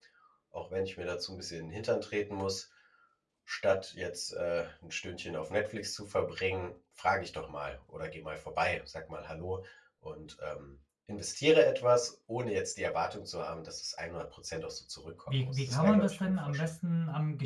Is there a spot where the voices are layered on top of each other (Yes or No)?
Yes